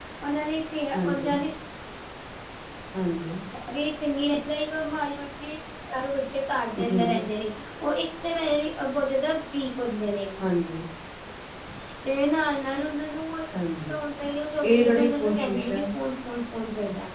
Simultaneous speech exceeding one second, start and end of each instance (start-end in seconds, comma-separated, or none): 14.6-15.8